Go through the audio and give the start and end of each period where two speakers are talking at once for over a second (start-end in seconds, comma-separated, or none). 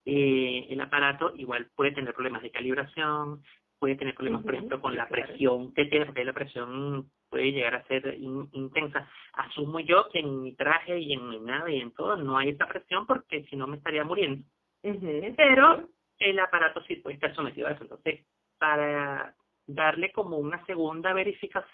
4.2-5.4